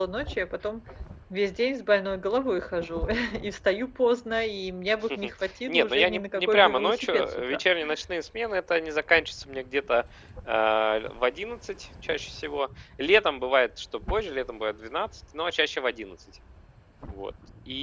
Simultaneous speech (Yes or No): Yes